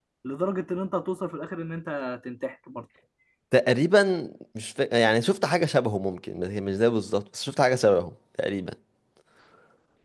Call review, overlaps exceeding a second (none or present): none